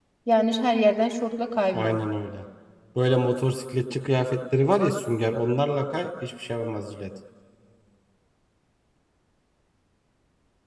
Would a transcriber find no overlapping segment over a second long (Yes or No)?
Yes